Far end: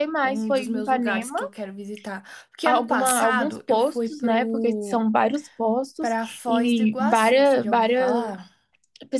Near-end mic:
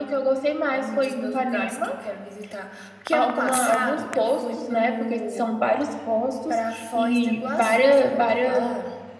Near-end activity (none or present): none